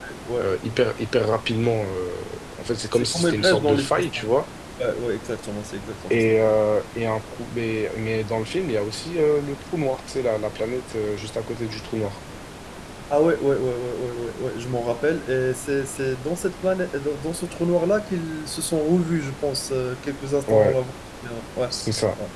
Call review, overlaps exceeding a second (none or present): present